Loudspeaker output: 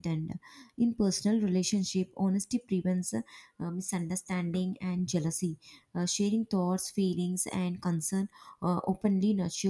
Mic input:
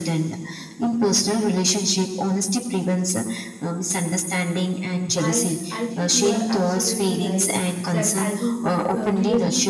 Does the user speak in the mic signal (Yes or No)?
Yes